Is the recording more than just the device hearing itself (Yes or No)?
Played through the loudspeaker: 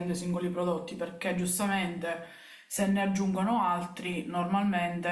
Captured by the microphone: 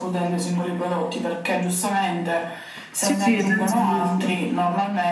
Yes